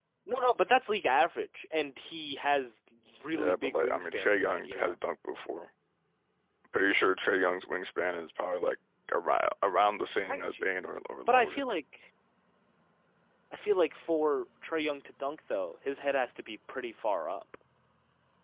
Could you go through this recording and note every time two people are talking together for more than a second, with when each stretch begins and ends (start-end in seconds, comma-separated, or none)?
3.3-5.0